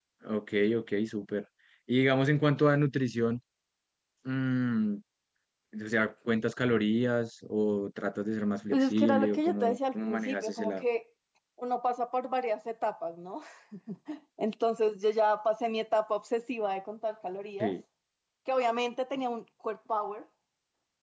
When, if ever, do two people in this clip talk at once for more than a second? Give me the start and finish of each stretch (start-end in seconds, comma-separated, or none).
8.7-10.8